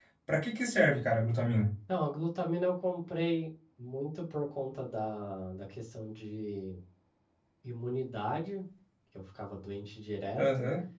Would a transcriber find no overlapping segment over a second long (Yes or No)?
Yes